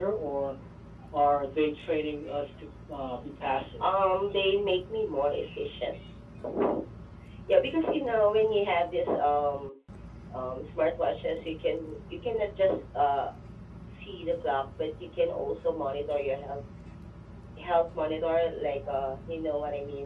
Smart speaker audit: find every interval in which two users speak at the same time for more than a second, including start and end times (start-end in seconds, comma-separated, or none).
none